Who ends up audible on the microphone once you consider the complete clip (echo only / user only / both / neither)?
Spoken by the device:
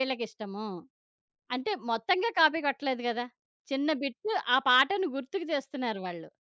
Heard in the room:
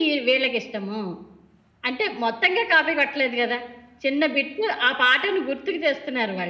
echo only